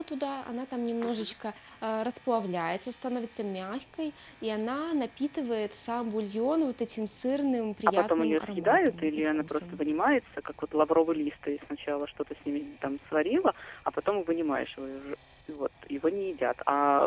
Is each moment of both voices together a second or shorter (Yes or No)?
No